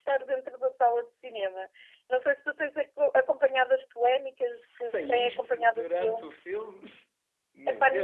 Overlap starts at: 4.5 s

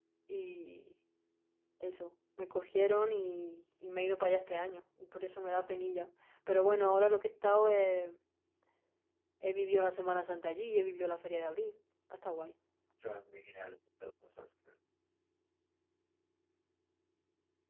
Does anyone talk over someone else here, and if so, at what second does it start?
none

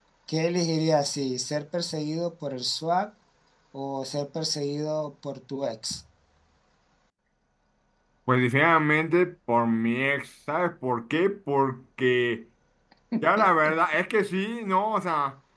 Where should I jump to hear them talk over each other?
none

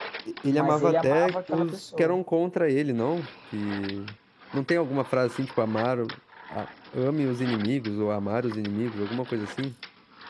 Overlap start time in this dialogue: 0.5 s

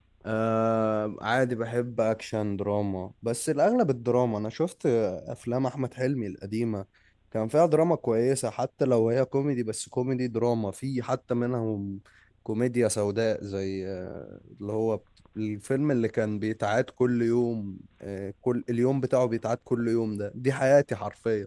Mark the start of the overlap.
none

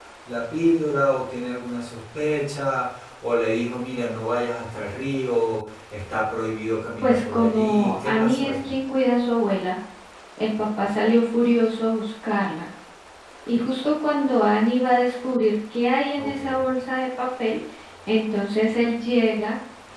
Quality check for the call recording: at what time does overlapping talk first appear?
7.0 s

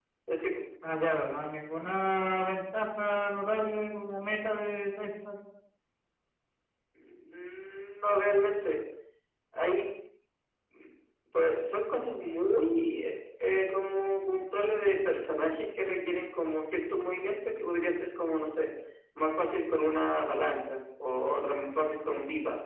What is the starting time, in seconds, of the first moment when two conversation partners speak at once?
none

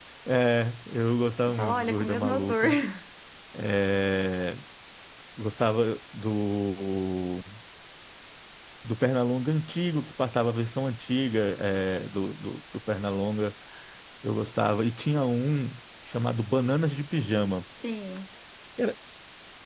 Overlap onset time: 1.5 s

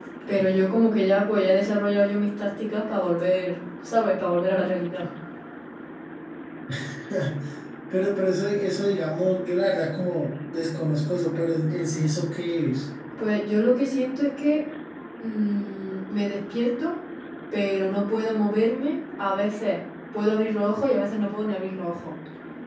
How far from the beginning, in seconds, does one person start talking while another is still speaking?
none

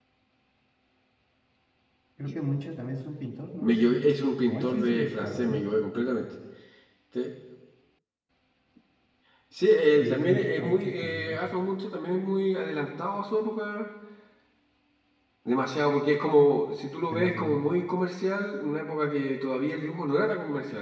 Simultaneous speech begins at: 3.6 s

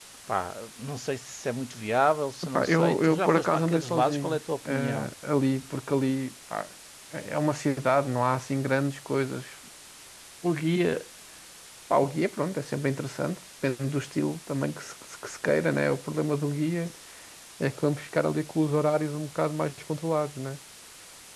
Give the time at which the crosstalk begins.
2.5 s

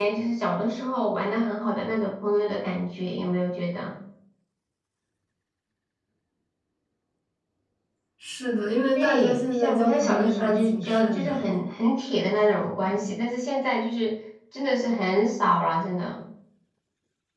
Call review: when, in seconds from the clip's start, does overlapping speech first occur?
8.9 s

